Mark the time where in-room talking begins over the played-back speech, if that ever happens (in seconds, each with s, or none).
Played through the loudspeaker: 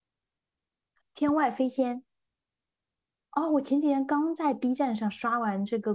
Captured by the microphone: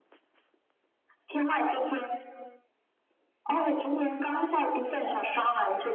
3.5 s